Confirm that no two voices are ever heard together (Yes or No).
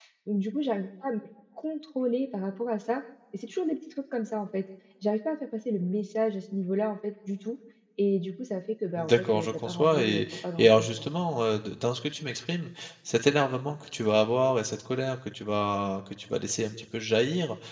No